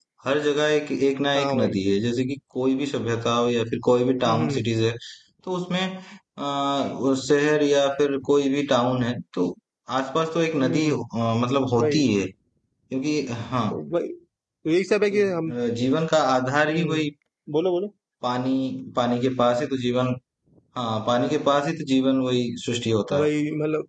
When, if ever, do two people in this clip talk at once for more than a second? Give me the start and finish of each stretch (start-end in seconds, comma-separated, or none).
none